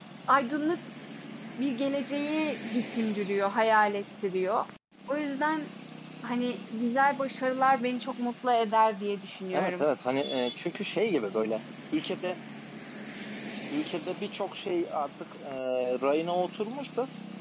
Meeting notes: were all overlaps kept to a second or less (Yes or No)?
Yes